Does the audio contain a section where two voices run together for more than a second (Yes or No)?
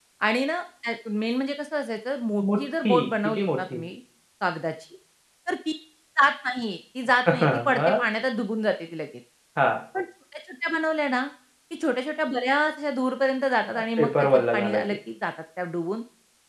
Yes